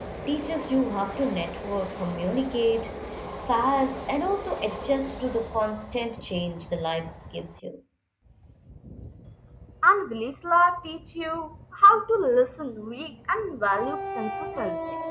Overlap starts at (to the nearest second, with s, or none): none